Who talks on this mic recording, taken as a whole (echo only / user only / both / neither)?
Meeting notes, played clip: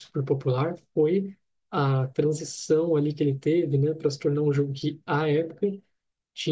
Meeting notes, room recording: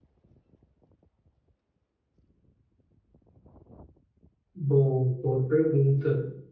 user only